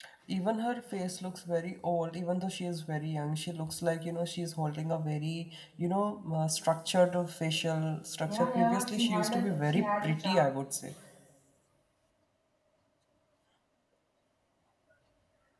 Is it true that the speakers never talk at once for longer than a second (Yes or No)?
No